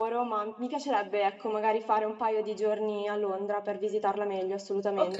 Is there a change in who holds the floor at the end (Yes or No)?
Yes